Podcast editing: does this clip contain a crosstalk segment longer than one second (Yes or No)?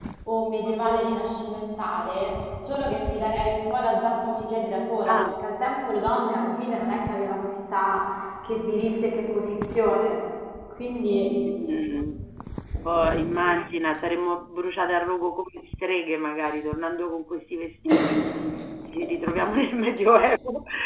No